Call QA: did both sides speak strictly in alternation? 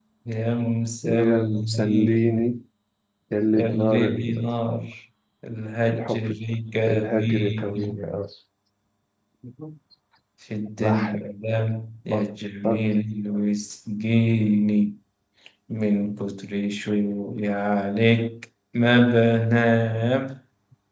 No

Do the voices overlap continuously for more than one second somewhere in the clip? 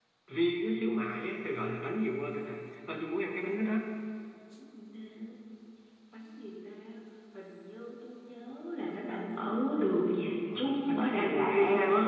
Yes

